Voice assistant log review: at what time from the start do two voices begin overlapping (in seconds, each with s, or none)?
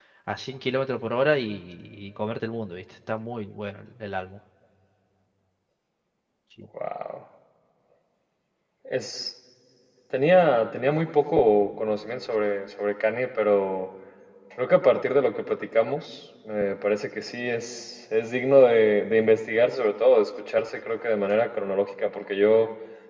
none